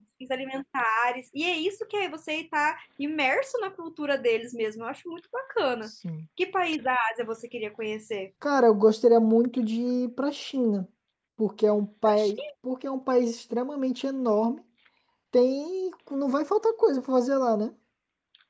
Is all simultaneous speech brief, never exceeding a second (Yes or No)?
Yes